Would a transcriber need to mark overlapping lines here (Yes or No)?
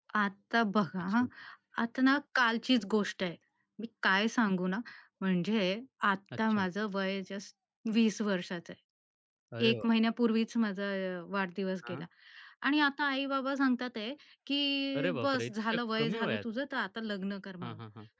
Yes